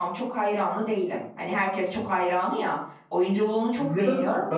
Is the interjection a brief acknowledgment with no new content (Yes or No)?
No